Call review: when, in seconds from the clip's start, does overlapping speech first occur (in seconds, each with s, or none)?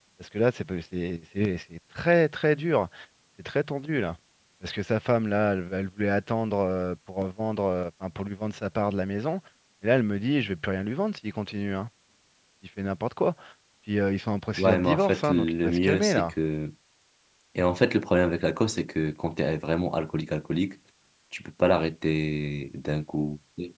14.6 s